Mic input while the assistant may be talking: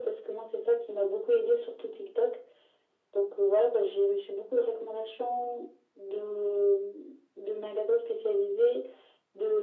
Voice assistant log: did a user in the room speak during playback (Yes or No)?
No